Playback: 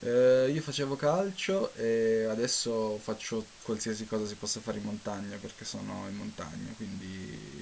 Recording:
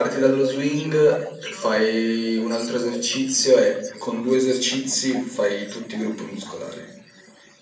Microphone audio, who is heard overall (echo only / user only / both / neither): both